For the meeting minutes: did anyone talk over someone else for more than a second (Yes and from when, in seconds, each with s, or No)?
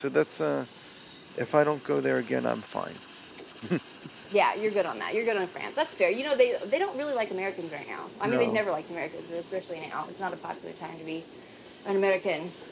No